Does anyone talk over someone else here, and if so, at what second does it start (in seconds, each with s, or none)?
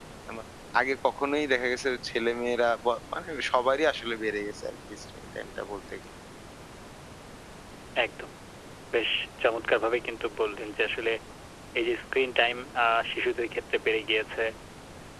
none